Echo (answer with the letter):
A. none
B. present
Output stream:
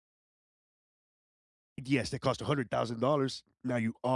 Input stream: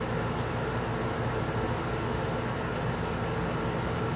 A